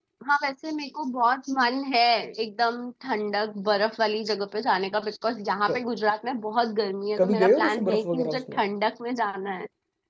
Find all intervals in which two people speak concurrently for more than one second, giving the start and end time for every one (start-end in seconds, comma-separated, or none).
7.2-8.6